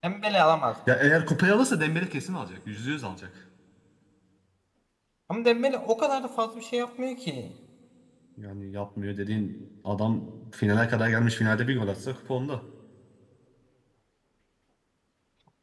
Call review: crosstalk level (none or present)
none